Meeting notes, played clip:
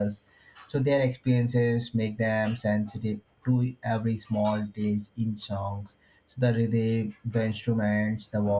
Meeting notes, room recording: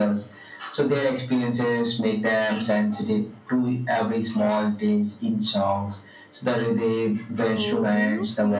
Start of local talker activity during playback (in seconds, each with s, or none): 7.4 s